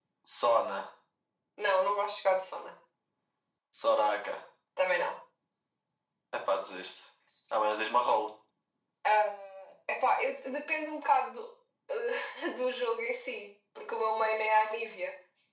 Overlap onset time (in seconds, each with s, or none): none